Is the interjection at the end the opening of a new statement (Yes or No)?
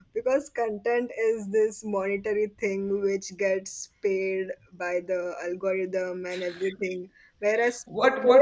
Yes